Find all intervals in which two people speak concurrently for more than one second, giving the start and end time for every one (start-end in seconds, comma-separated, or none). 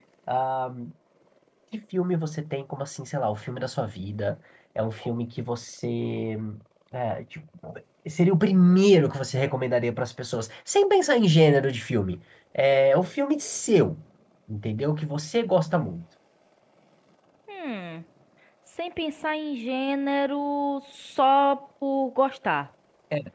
none